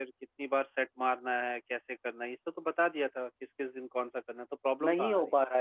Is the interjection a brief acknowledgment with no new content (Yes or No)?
No